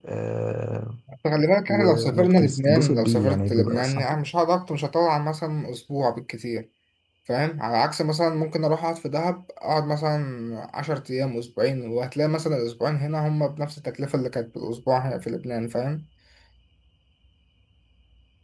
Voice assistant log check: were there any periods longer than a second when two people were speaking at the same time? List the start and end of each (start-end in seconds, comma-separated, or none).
1.7-4.0